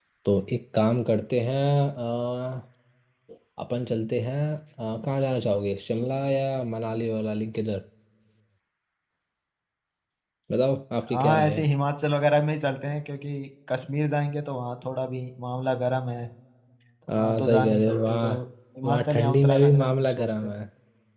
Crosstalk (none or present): present